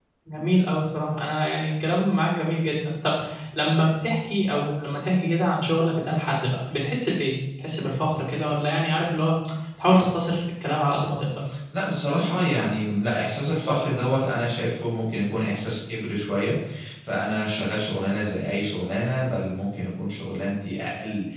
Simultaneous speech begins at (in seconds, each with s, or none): none